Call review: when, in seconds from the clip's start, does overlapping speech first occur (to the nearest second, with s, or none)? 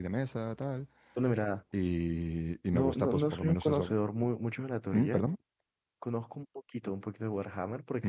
3 s